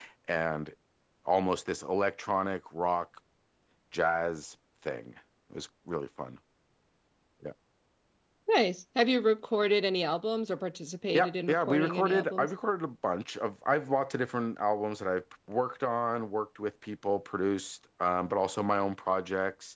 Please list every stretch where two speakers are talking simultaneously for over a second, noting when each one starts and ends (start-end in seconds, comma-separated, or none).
11.1-12.5